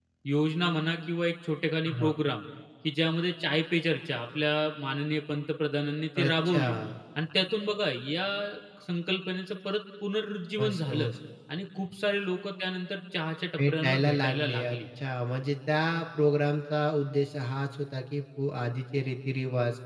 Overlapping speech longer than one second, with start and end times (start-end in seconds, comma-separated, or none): 13.6-14.8